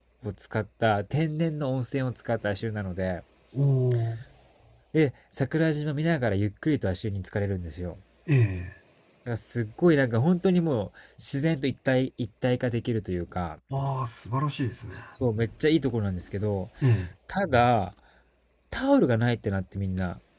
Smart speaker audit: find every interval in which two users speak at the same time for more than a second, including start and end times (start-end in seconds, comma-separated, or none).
none